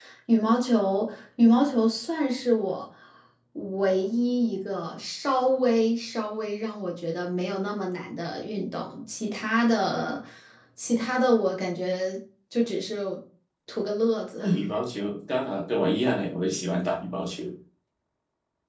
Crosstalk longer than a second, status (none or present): none